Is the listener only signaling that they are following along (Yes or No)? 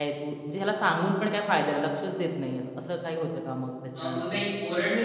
No